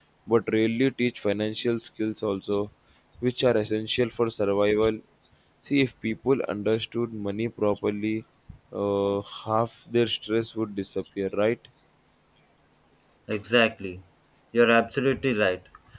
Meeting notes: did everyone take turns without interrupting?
Yes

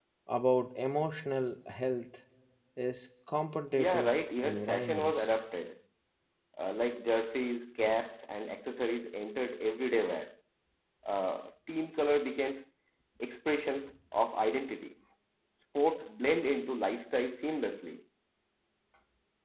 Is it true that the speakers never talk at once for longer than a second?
No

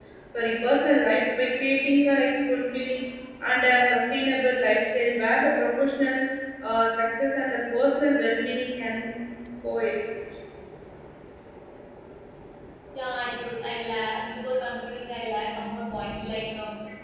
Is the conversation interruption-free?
Yes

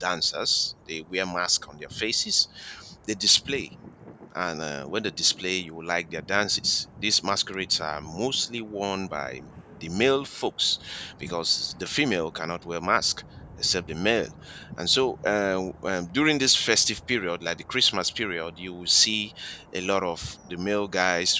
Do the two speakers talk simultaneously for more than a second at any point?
No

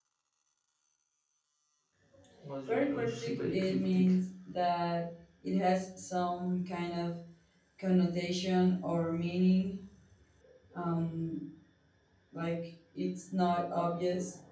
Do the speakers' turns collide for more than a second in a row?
Yes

